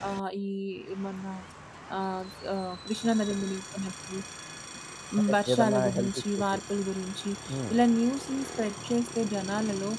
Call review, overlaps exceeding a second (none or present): present